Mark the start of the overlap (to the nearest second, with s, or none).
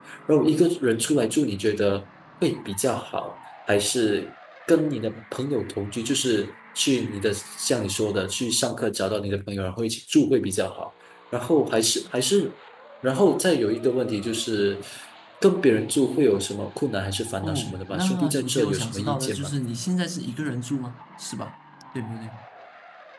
17 s